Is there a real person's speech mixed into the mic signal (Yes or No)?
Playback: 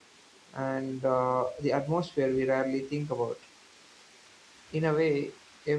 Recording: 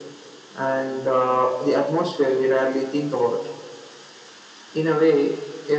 No